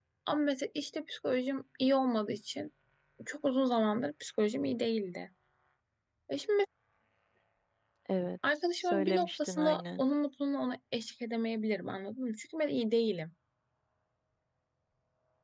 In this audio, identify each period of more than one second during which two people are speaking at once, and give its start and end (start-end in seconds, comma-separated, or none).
8.8-10.0